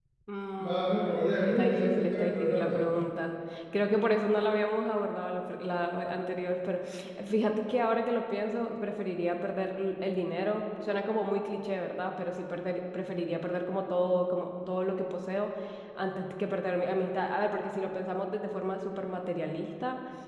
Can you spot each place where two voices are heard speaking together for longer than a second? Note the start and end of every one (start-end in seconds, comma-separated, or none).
0.6-2.8